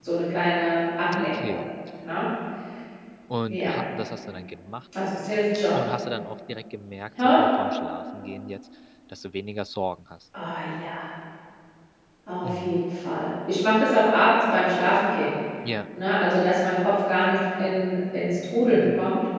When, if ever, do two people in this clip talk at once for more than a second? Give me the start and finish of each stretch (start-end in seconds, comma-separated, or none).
none